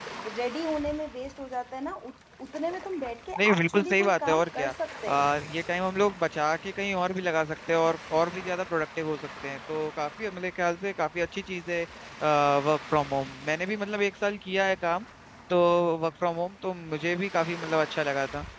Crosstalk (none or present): present